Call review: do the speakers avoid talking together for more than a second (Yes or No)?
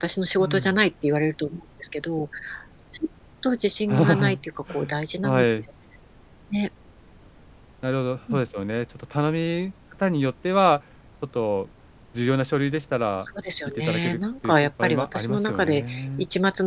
No